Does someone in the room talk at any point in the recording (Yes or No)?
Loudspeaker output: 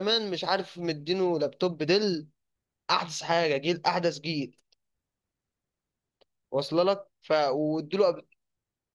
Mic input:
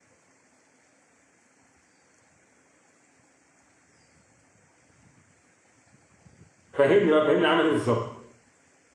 Yes